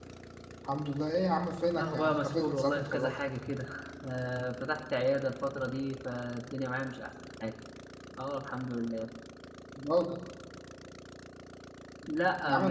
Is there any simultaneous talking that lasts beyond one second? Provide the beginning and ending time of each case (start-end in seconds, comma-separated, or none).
1.8-3.2